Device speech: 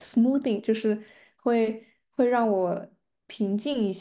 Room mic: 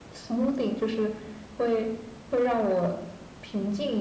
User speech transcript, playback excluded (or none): none